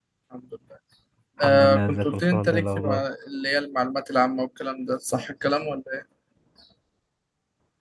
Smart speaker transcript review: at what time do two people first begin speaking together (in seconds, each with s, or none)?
1.4 s